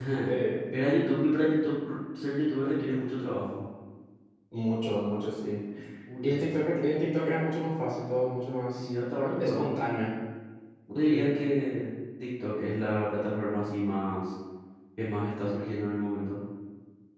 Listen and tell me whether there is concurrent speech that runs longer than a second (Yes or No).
No